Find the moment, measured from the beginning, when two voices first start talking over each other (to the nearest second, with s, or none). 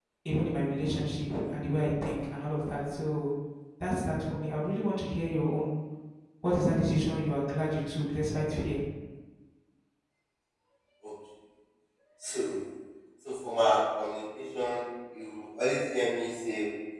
none